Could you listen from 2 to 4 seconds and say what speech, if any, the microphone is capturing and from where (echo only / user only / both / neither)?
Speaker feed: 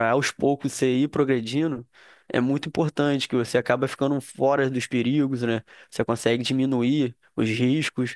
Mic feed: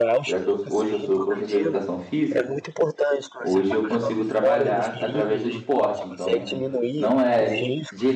both